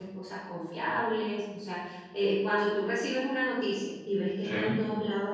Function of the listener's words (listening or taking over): listening